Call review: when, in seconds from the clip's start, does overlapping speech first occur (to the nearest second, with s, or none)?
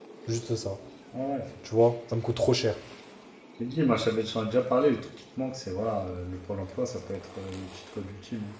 none